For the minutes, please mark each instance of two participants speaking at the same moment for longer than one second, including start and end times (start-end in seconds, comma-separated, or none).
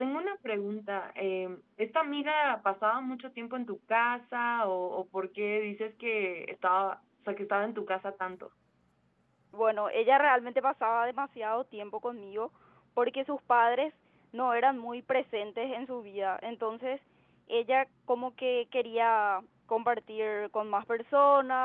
none